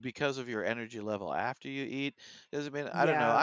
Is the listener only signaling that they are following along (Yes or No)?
Yes